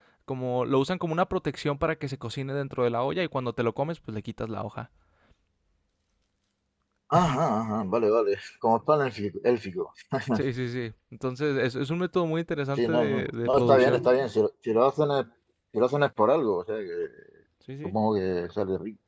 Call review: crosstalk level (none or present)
present